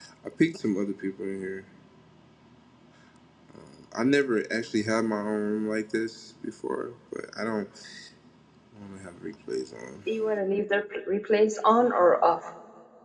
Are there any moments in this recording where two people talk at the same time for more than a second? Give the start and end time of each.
none

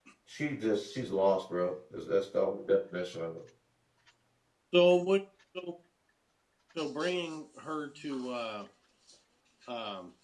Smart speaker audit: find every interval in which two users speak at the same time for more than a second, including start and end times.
none

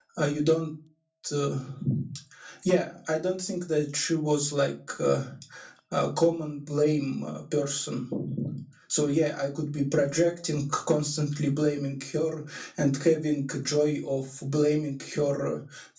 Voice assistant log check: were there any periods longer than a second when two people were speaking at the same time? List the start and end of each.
none

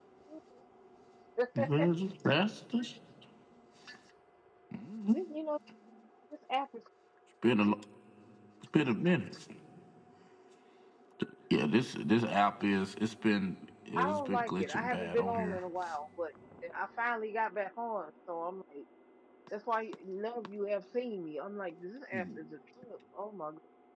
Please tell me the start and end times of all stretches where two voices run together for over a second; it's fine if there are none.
14.0-15.6

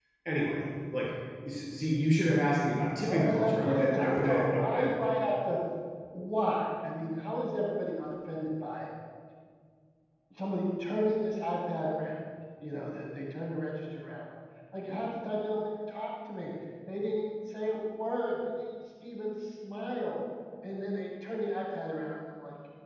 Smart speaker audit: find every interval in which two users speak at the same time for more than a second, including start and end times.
3.1-4.9

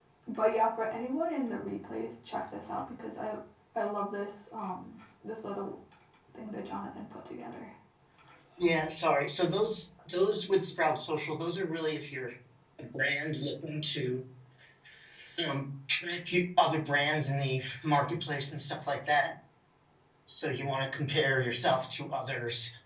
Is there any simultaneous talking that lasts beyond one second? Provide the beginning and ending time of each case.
none

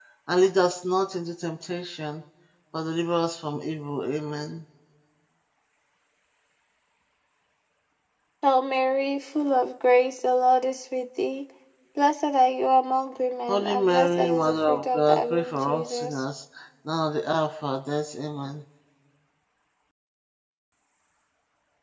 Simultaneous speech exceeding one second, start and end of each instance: 13.5-16.2

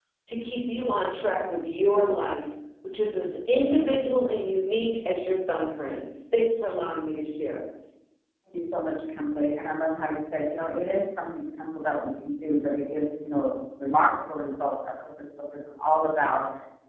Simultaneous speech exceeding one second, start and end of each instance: none

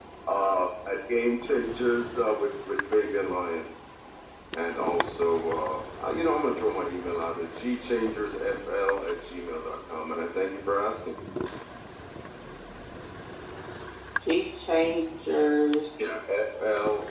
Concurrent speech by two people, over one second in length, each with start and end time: none

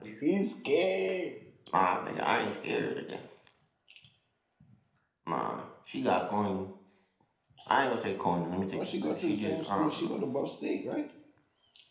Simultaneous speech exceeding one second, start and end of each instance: 8.7-10.1

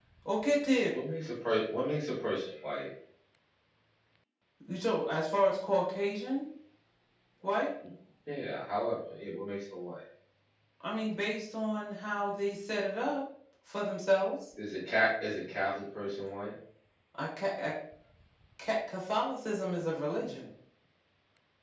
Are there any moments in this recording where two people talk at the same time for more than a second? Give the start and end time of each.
none

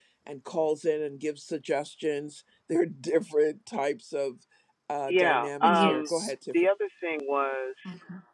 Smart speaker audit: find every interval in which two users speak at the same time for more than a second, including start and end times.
5.1-6.3

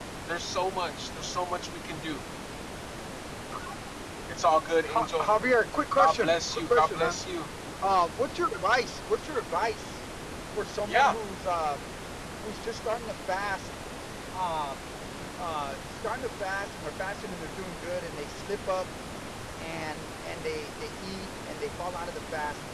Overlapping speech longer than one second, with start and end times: 6.0-7.2

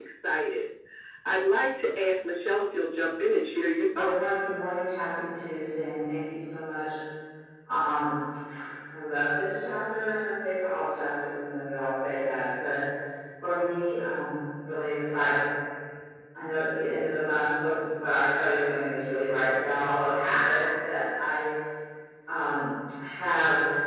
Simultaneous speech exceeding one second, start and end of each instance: none

